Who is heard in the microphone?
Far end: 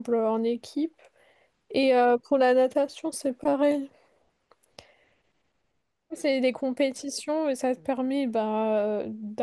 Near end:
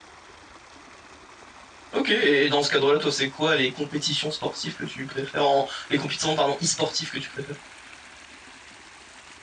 user only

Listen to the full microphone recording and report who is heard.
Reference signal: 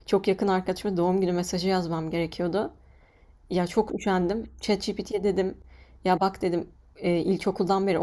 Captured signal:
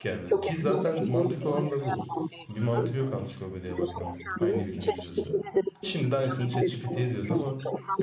both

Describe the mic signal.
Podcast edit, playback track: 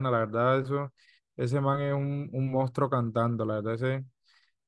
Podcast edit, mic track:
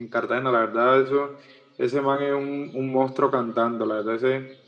echo only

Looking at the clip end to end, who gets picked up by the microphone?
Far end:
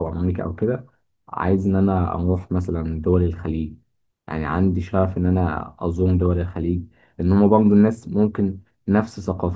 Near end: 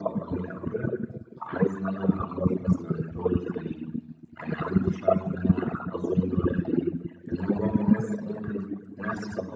echo only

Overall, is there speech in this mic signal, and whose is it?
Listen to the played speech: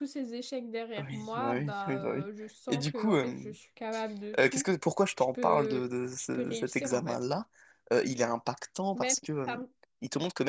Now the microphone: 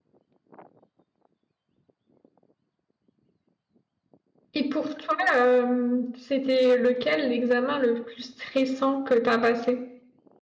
user only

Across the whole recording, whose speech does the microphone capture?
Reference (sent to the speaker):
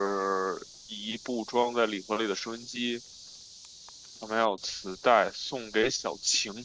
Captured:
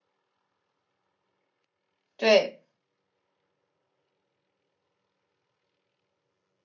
user only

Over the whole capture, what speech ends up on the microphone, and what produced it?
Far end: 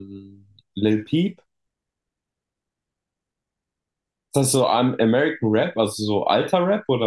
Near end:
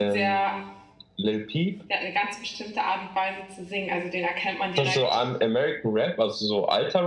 both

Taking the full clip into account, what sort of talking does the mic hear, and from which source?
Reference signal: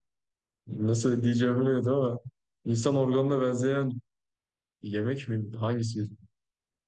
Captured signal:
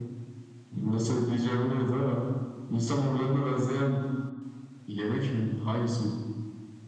echo only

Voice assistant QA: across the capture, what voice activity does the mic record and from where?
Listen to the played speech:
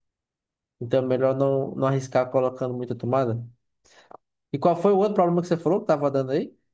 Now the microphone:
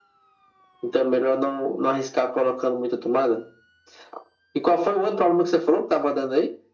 echo only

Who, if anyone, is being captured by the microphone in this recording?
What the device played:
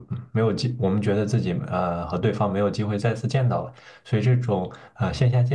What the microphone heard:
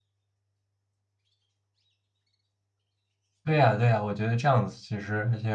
user only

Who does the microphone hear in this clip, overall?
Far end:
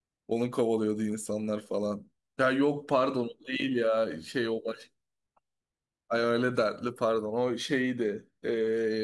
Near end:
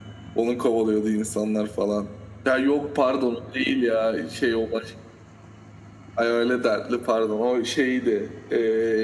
echo only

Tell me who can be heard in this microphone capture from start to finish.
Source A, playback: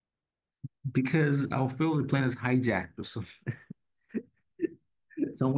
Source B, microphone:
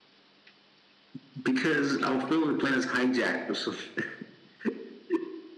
echo only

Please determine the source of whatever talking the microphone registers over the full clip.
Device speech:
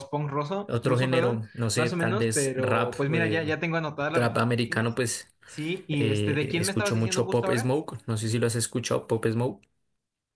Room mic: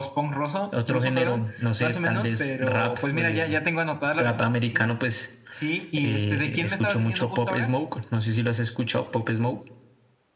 echo only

